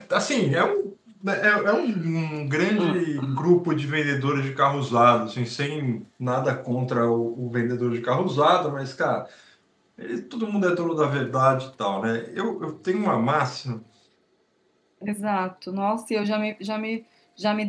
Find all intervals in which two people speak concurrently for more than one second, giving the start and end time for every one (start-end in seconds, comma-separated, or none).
none